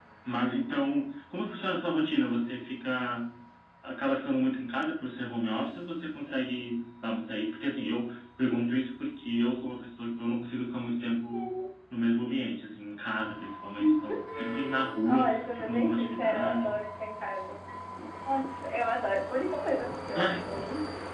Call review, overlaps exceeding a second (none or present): present